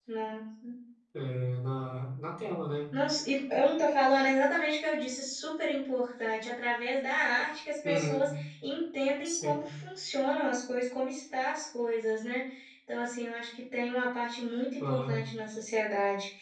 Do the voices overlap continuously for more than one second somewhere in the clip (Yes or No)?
No